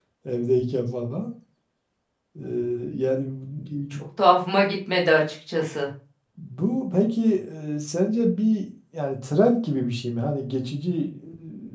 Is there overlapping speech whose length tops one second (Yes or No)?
No